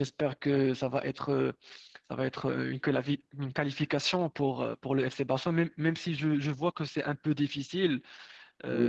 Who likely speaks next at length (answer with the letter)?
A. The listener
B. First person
A